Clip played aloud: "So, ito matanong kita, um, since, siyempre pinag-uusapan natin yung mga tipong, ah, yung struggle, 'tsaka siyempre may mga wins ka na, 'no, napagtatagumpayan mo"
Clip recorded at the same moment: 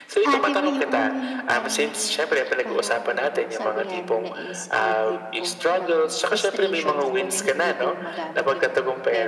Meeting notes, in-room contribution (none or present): present